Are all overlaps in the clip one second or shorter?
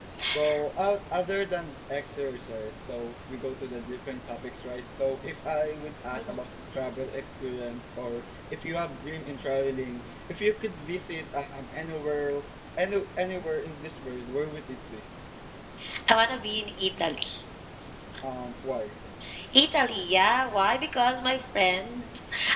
Yes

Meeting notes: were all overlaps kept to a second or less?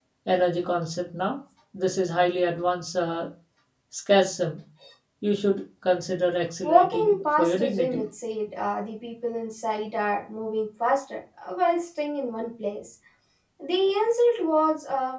No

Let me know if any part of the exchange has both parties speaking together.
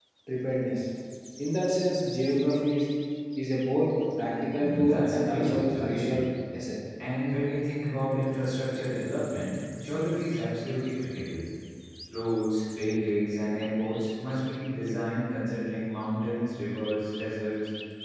Yes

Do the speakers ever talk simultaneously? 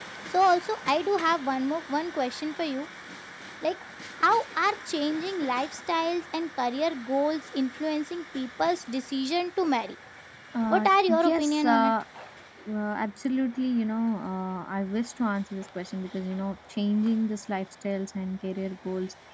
Yes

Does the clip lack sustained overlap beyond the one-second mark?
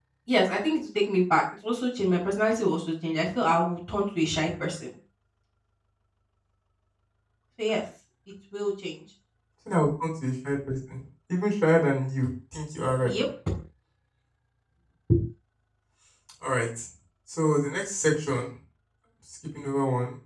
Yes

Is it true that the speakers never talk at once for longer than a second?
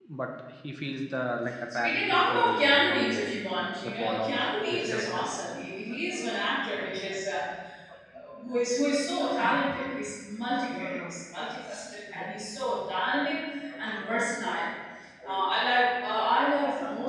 No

